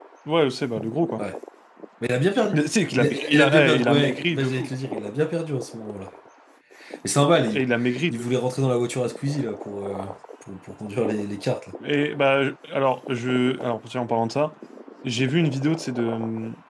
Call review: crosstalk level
present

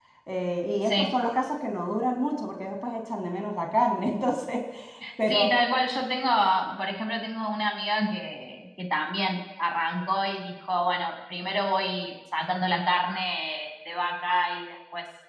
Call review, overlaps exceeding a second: none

